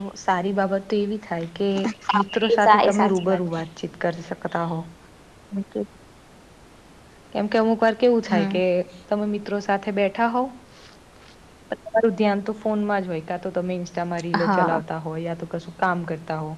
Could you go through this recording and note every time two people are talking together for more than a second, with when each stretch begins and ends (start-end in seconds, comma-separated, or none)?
2.2-3.4